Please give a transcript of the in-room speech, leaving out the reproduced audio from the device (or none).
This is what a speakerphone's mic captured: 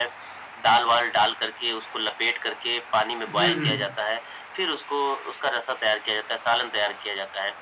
हुँ, हुँ।